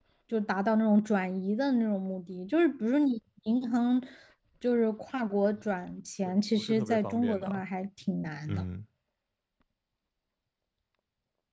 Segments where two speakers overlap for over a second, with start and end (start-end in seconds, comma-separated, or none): 6.2-7.6